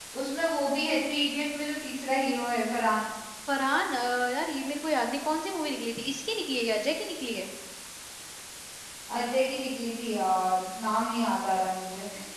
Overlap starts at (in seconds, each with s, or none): none